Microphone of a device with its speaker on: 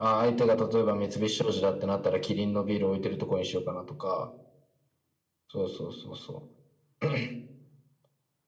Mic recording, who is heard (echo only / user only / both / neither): echo only